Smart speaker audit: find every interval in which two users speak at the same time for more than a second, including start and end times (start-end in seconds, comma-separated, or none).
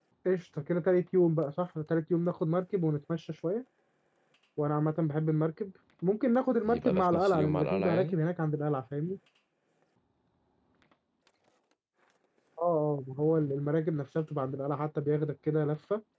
6.7-8.2